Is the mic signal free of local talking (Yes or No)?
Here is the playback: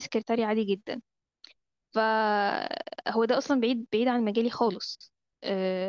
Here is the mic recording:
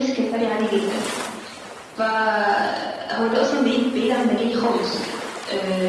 Yes